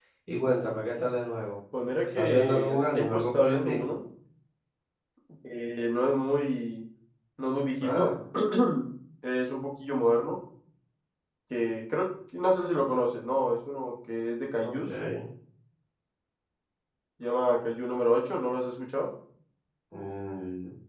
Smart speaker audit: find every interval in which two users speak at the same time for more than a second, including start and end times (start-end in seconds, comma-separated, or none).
2.0-3.8